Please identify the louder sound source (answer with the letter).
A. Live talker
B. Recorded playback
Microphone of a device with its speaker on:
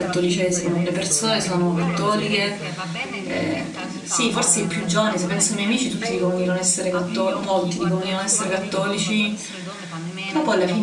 A